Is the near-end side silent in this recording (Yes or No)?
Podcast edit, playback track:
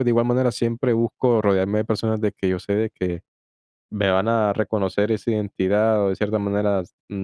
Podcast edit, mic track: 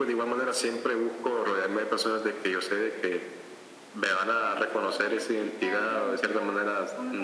No